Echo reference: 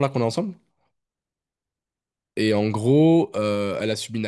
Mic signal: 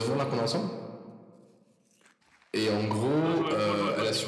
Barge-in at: 3.2 s

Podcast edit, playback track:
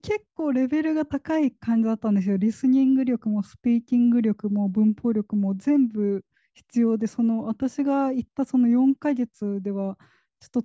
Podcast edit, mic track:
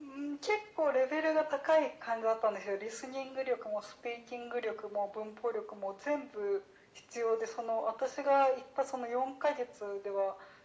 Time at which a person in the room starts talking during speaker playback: none

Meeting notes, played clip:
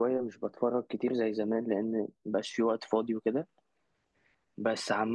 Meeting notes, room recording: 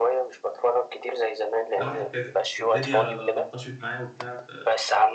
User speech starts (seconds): 1.7 s

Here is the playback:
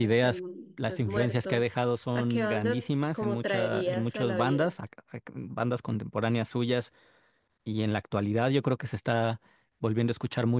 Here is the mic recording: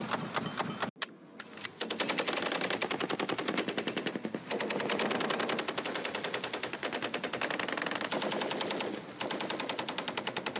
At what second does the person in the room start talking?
none

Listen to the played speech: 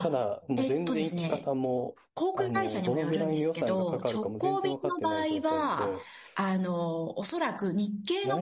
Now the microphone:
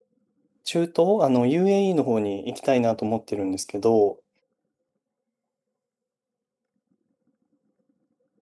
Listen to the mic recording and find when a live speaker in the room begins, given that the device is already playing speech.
0.6 s

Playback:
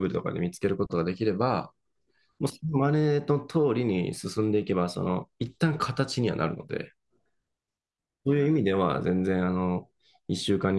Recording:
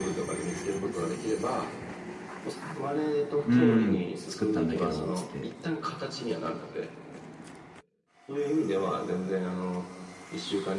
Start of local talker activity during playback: 3.4 s

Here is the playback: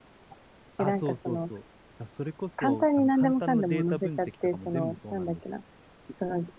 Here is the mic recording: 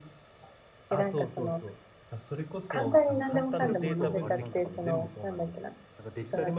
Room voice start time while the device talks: 2.9 s

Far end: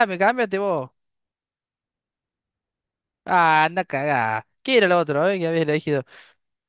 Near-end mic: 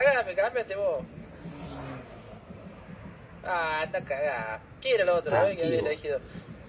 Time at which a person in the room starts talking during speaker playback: 5.0 s

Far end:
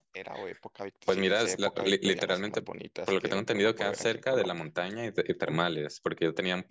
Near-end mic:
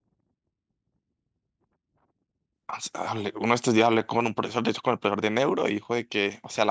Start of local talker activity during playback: 2.7 s

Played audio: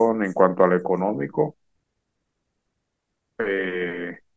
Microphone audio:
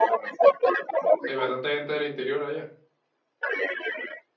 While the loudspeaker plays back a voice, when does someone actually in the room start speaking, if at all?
1.2 s

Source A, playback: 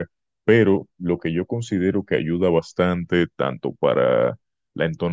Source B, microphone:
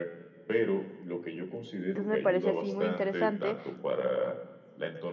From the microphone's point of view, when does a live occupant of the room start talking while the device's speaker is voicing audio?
1.9 s

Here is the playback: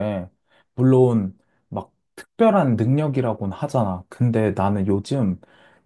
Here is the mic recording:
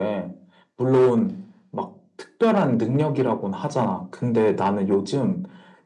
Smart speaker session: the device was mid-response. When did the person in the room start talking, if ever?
none

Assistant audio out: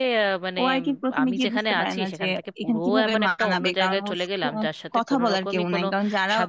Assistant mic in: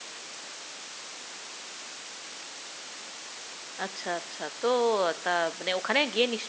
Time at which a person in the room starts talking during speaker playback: 3.8 s

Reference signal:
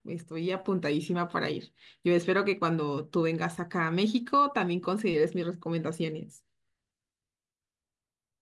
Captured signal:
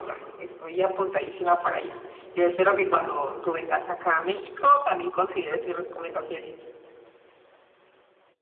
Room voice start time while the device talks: none

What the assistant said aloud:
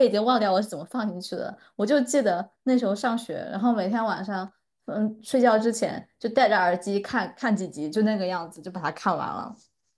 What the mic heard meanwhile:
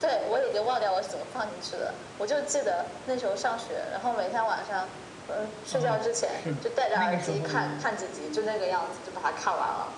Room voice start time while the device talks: 5.7 s

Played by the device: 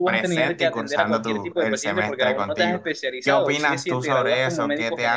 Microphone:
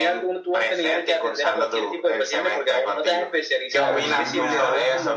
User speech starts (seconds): 3.7 s

